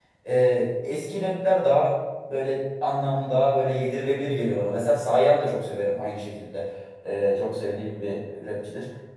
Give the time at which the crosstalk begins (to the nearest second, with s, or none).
none